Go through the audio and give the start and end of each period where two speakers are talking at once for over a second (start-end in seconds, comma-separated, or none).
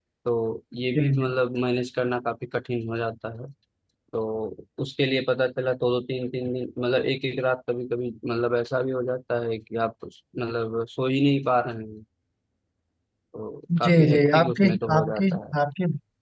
13.8-15.5